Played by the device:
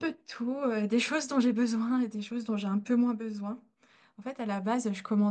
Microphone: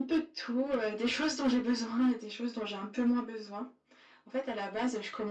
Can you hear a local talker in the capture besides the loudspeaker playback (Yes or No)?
No